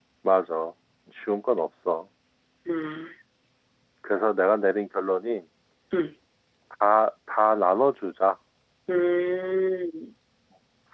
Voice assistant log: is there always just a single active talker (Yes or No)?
Yes